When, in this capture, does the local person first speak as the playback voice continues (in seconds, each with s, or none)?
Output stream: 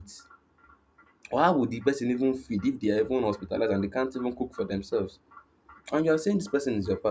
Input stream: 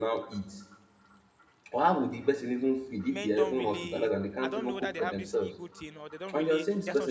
3.1 s